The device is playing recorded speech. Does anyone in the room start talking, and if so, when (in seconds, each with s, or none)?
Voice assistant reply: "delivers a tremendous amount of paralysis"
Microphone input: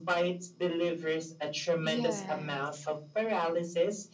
1.8 s